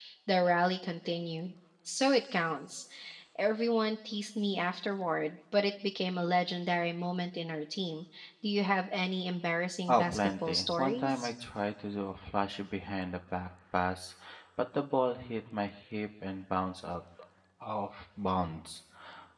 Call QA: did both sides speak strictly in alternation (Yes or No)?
No